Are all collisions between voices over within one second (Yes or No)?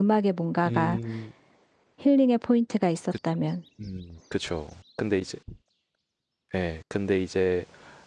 Yes